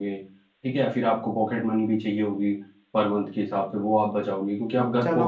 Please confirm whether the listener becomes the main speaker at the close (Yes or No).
Yes